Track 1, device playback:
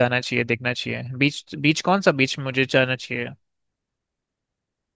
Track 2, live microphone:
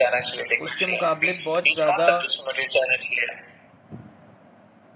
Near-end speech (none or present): present